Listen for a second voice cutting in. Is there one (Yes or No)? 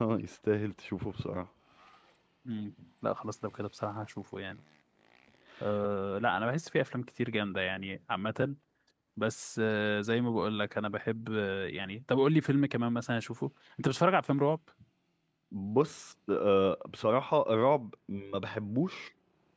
No